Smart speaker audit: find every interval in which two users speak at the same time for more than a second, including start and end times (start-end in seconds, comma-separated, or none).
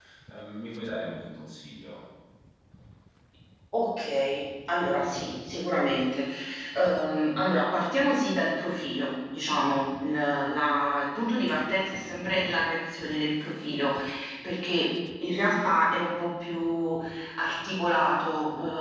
none